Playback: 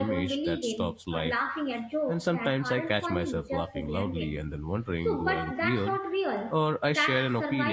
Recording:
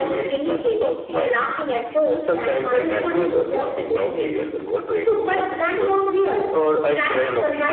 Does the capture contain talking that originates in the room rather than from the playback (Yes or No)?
No